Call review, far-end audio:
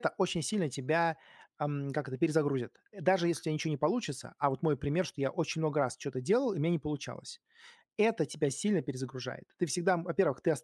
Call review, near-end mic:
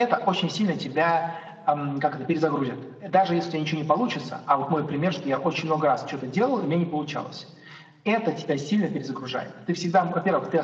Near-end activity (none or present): none